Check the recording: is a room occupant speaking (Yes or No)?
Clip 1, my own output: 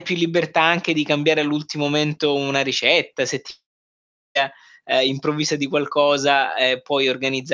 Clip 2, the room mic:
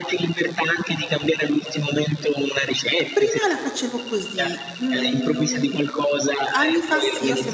Yes